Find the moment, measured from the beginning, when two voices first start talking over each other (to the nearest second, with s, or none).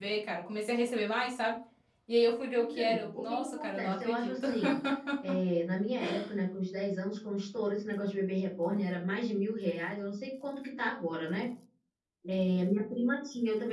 3 s